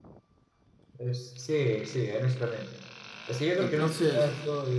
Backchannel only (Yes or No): Yes